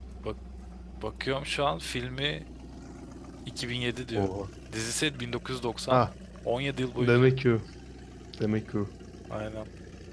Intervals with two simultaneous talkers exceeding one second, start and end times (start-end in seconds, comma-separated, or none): none